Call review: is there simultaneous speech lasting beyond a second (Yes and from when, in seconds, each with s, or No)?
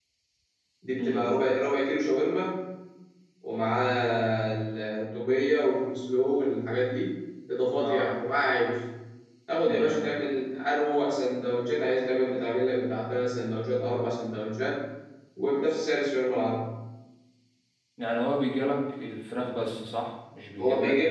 No